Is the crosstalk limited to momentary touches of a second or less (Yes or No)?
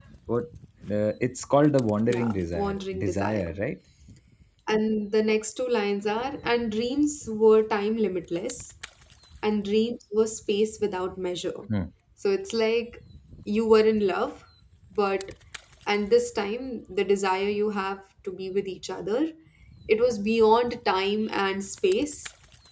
No